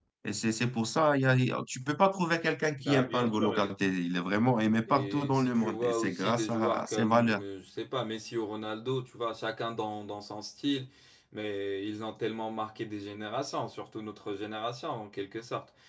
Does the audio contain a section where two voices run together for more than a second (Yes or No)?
Yes